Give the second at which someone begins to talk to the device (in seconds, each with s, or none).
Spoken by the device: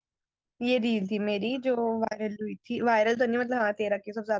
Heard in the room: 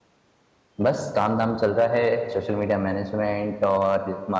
0.8 s